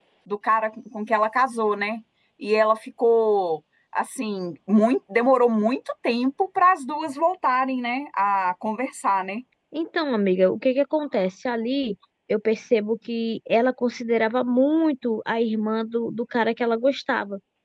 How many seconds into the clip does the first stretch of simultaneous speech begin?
none

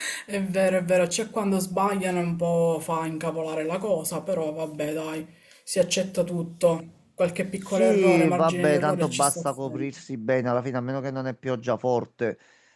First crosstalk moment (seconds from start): 8 s

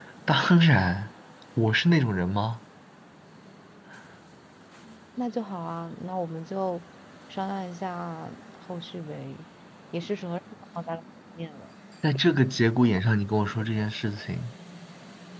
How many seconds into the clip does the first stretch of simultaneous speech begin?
none

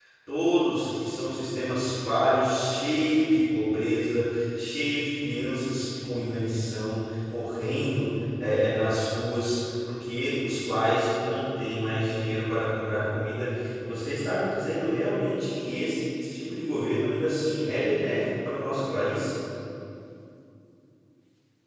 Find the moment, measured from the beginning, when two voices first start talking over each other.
none

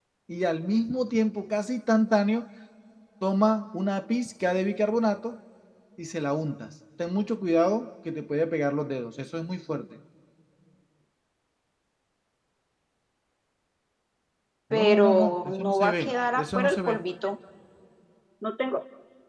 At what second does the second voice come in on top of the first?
15 s

